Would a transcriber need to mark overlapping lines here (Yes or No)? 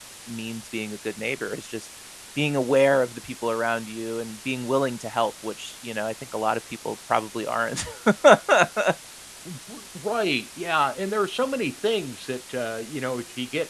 No